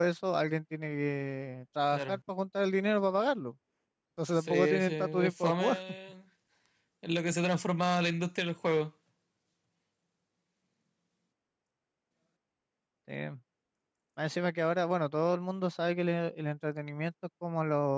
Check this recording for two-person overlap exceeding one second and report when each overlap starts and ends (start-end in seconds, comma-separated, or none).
4.3-5.8